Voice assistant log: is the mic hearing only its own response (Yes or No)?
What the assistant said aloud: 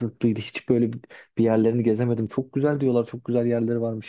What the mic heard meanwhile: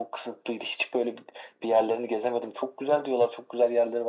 Yes